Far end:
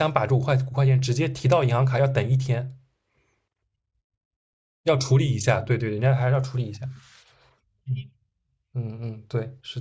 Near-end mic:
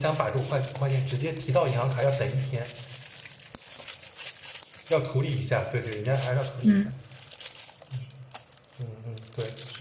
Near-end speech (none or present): present